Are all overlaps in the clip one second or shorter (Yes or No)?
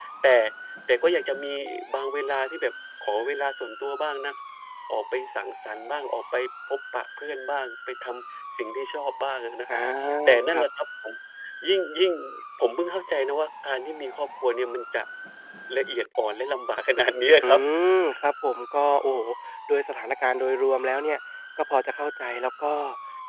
Yes